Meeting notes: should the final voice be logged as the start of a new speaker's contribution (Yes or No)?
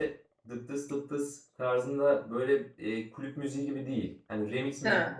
No